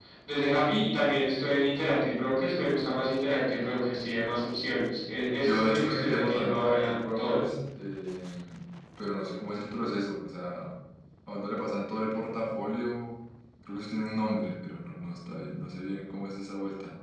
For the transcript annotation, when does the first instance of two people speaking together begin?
5.3 s

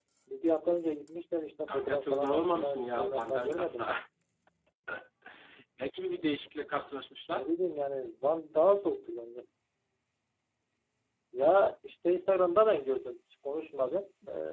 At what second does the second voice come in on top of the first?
1.7 s

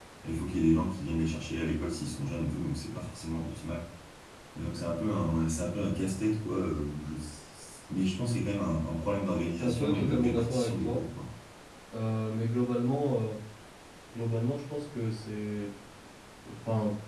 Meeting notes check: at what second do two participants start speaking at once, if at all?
9.6 s

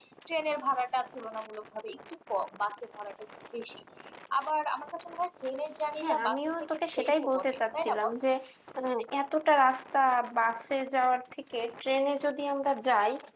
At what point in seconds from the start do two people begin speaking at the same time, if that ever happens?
6.0 s

